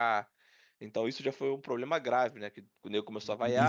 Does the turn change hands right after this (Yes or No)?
Yes